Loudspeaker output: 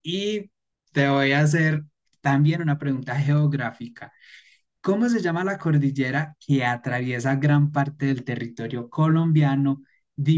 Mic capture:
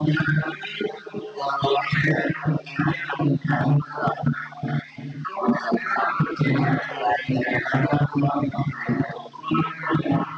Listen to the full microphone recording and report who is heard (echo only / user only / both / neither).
echo only